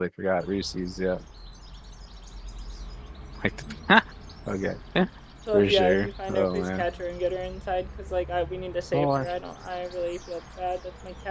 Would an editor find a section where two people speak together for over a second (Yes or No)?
Yes